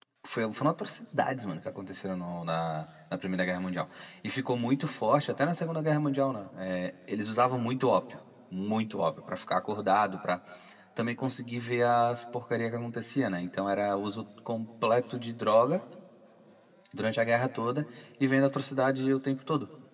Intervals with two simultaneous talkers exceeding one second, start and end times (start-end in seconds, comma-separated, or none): none